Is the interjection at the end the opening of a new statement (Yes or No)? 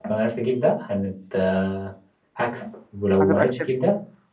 No